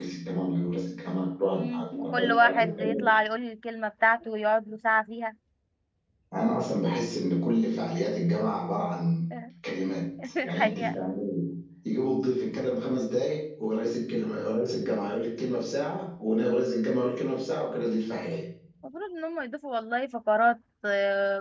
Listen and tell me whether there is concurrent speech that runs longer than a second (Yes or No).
Yes